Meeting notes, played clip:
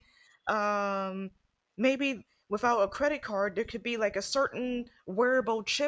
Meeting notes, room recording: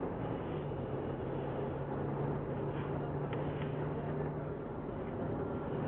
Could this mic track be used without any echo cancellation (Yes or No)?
Yes